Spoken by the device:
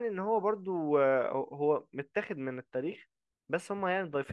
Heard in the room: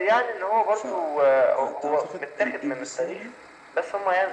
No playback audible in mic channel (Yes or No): No